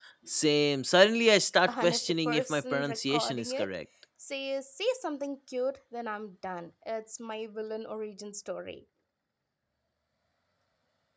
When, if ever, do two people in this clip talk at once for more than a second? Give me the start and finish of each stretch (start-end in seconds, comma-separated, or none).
1.7-3.7